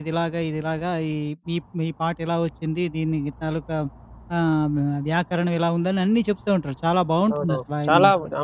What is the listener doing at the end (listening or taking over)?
taking over